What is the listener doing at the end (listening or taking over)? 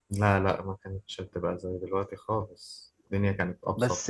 taking over